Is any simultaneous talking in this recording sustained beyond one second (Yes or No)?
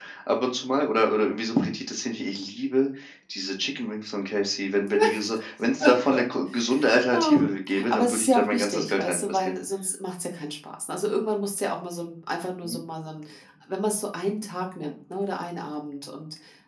Yes